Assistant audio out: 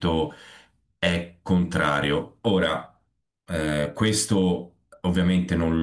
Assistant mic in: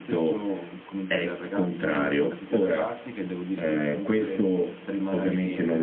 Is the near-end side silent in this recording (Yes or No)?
No